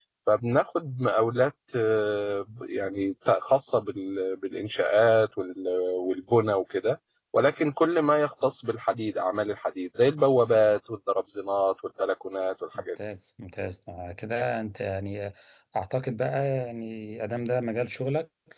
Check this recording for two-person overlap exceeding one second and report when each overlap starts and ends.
none

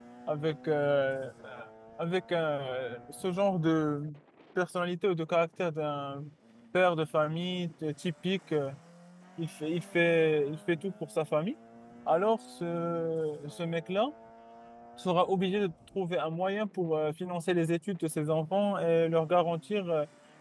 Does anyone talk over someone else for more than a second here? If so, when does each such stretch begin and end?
none

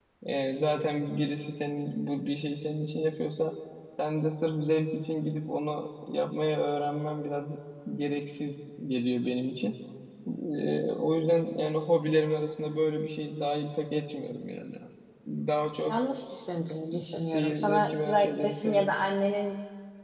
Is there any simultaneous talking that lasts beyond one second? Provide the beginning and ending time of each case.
17.0-18.9

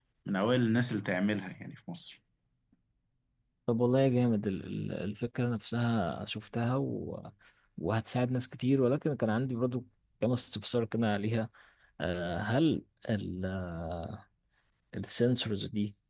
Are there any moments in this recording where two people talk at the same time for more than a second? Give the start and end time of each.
none

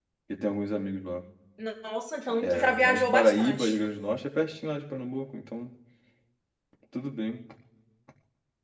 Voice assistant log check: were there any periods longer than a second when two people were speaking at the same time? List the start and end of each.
2.4-3.7

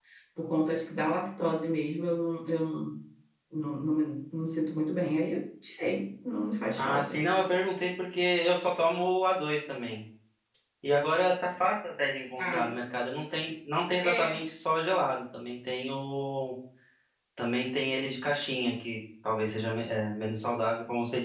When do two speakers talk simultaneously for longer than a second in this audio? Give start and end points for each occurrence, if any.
none

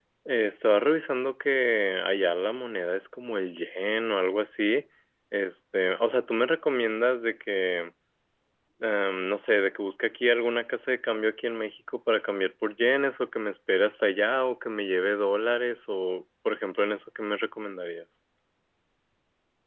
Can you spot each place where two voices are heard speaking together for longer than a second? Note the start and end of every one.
none

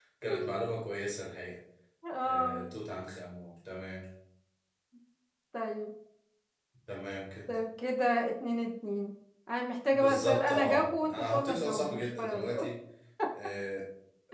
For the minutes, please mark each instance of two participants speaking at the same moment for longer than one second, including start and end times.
9.9-12.6

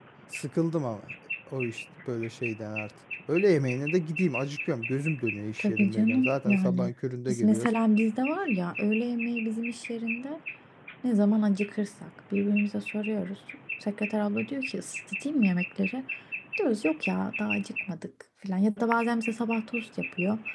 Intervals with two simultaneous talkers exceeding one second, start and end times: 5.6-6.9

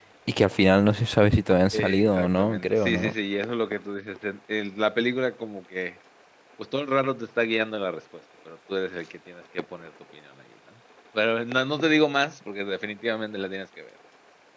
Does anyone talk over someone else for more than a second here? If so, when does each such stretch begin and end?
1.7-3.1

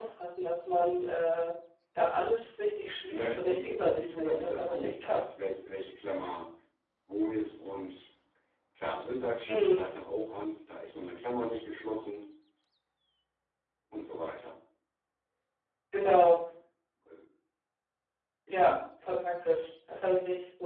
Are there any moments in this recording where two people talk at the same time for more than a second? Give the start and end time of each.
3.1-5.2

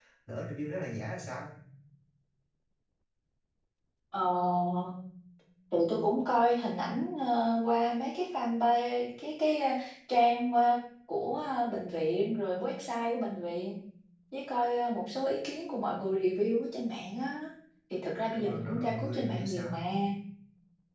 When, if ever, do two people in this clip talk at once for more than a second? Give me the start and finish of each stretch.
18.4-19.8

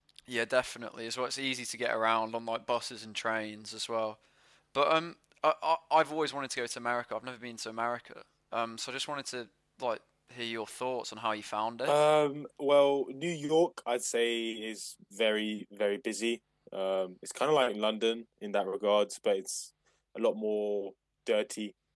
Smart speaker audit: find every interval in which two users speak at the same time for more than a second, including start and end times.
none

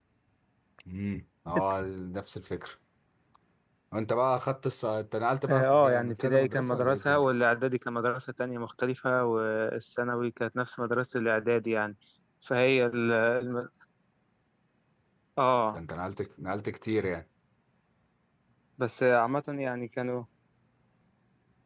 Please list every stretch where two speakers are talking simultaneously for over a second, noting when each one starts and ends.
5.5-7.2

